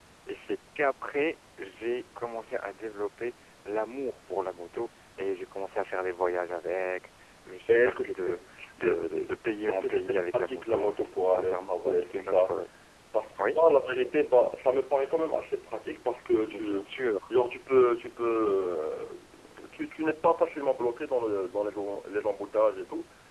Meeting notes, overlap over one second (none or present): present